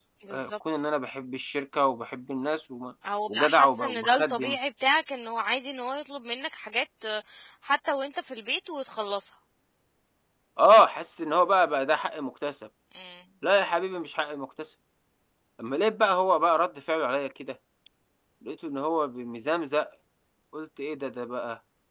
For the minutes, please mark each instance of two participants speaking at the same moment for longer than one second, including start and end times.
3.3-4.6

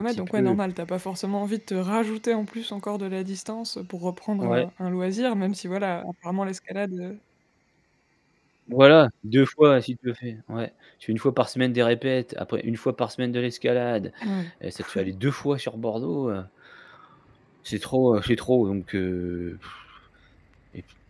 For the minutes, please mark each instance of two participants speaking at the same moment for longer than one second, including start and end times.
none

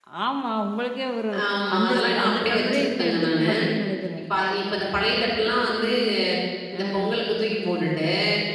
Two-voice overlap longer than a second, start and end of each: 1.8-3.5

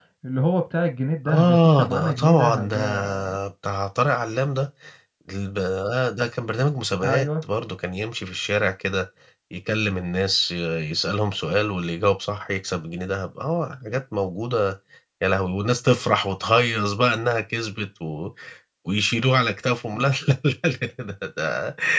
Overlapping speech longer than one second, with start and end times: 1.3-3.1

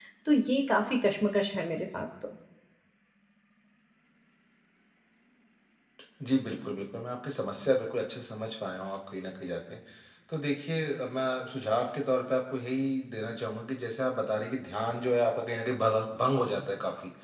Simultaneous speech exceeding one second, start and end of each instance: none

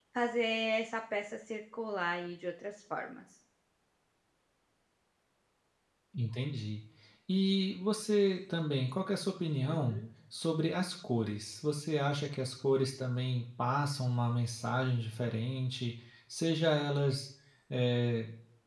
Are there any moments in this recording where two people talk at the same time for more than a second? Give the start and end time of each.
none

